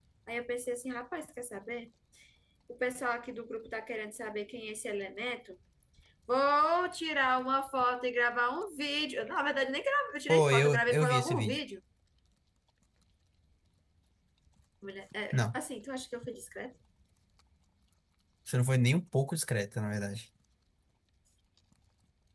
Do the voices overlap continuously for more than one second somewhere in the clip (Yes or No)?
Yes